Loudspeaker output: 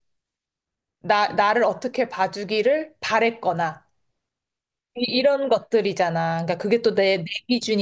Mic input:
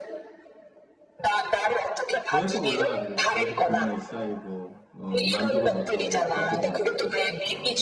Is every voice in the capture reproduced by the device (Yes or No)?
No